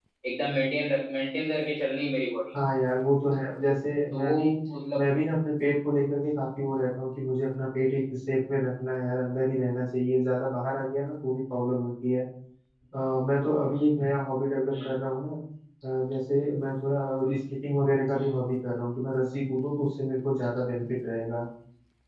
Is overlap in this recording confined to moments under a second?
Yes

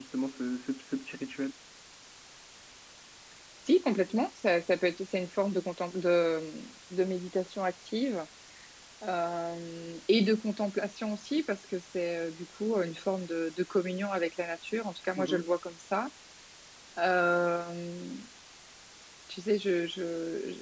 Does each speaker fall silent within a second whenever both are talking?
Yes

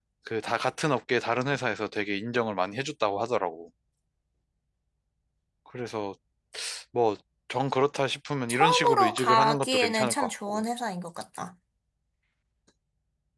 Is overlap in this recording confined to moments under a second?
No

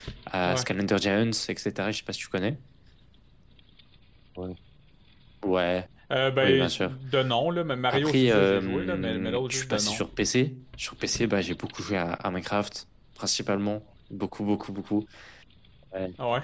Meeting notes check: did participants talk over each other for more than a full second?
Yes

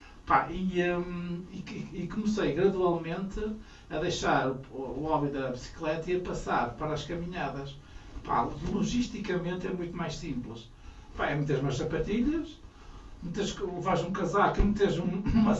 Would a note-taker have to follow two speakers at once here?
No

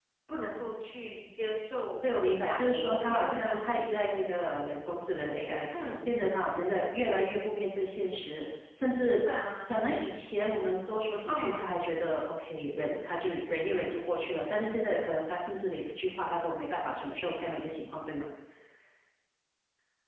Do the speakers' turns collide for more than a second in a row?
Yes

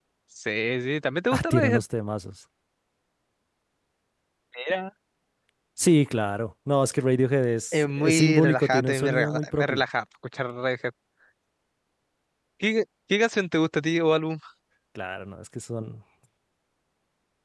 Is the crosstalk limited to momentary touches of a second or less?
No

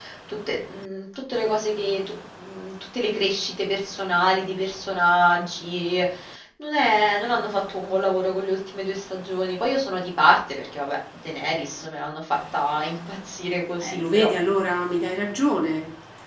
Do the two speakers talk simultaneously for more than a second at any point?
No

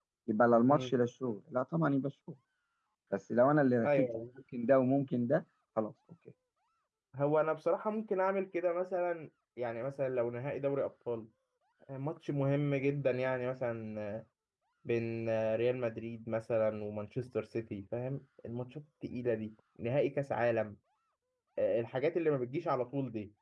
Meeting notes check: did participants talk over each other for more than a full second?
No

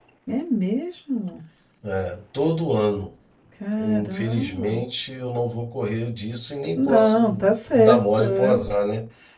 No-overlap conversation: No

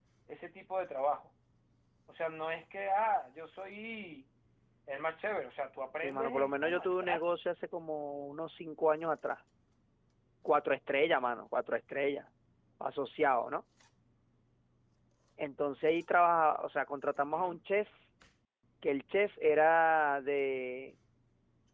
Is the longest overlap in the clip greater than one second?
Yes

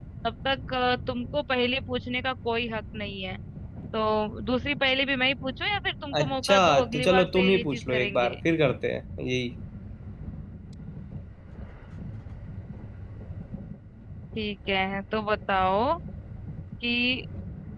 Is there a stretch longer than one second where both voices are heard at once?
Yes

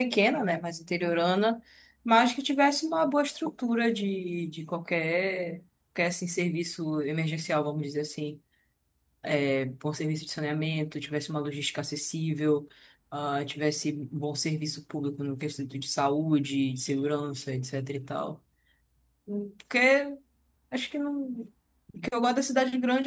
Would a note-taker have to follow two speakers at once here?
No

